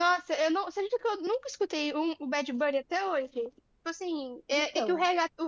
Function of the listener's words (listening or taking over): listening